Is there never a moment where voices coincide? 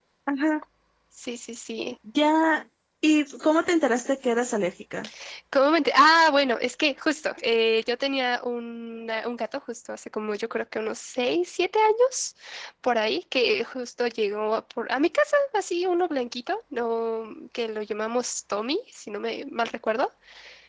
Yes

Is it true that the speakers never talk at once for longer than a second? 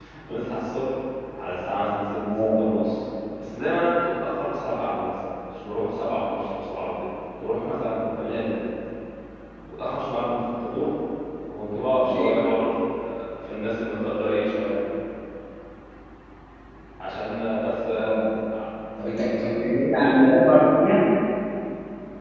Yes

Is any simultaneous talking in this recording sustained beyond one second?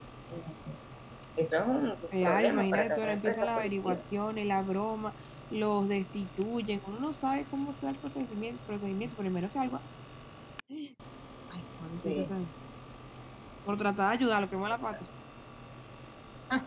Yes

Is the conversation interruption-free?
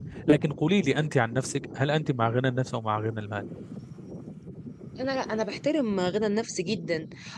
Yes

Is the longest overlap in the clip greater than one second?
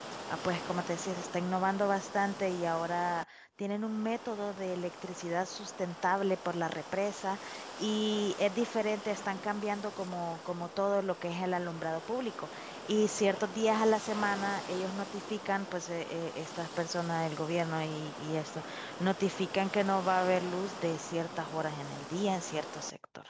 No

